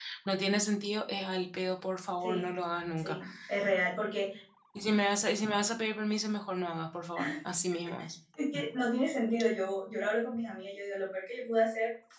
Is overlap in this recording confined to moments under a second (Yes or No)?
Yes